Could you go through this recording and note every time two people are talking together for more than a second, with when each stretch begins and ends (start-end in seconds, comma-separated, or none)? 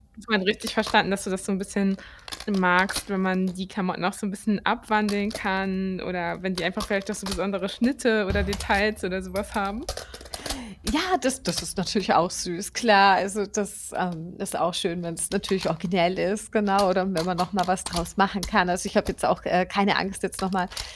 none